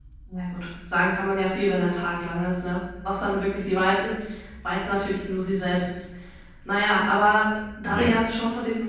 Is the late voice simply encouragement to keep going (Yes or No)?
Yes